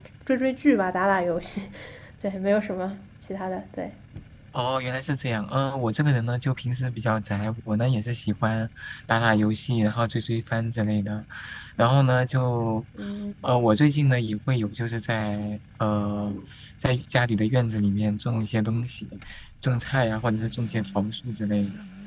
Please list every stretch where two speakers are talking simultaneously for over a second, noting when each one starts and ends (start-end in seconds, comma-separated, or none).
none